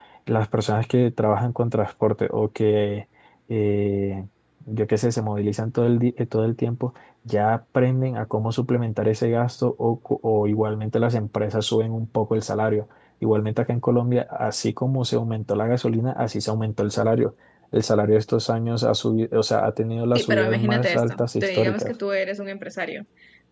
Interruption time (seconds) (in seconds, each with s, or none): 20.1 s